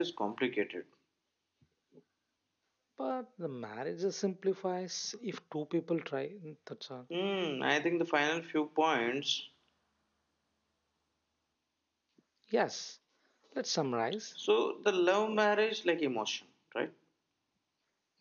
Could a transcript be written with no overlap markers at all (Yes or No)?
Yes